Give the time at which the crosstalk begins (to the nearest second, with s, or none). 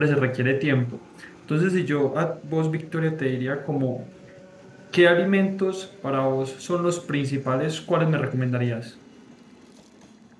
none